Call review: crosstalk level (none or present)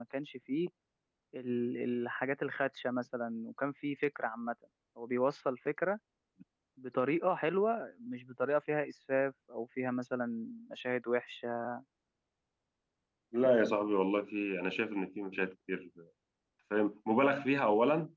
none